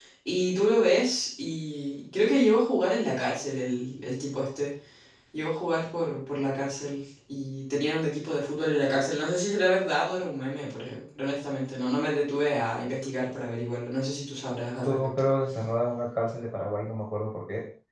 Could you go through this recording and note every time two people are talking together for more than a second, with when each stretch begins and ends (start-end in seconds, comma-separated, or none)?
none